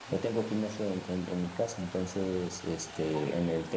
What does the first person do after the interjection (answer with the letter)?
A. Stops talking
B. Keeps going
B